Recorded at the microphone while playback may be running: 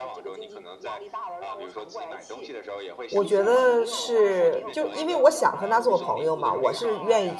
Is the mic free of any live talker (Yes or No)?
No